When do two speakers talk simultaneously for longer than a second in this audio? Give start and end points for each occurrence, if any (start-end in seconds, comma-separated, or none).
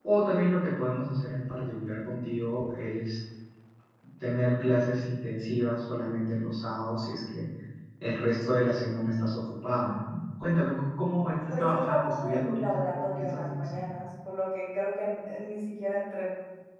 11.5-13.8